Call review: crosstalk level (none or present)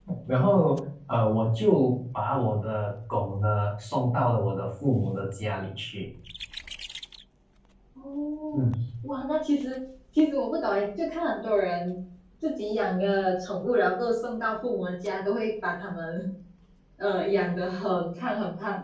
none